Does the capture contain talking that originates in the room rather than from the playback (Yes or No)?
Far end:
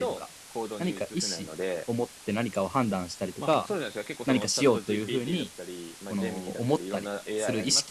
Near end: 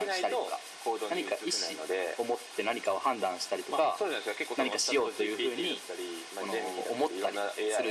No